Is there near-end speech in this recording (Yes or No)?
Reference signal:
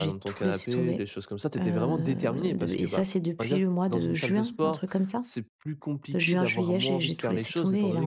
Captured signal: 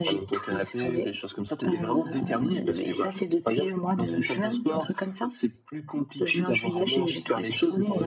No